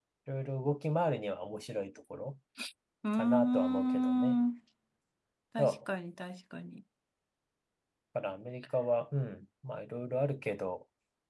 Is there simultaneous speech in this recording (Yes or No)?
Yes